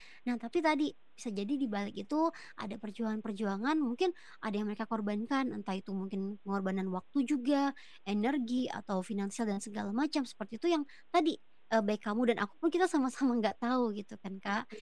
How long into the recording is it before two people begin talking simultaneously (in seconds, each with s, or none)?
none